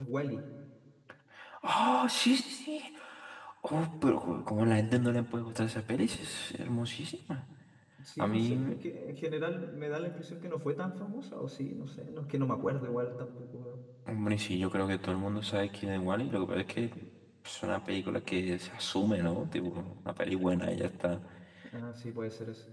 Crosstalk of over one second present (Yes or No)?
No